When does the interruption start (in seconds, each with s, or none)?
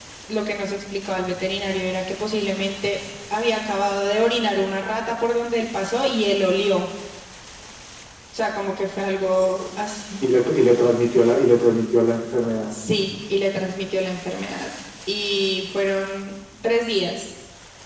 none